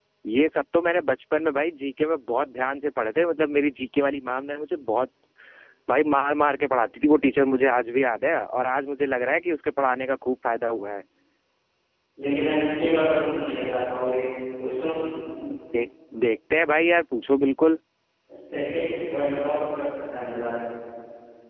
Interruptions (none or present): none